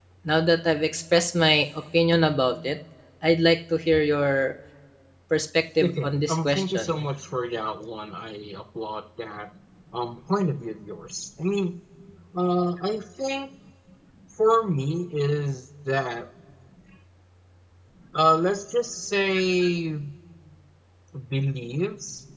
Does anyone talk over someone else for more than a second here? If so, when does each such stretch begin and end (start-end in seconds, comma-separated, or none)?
5.8-7.0